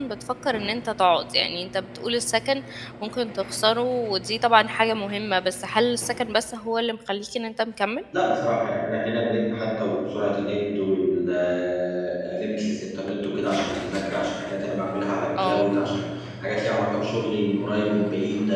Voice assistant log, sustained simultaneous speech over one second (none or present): none